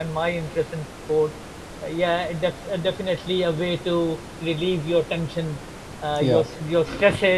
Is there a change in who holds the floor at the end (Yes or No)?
No